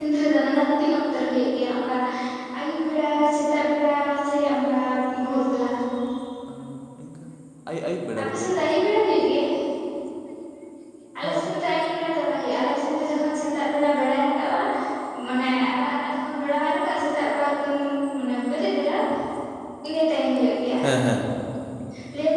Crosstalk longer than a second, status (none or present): none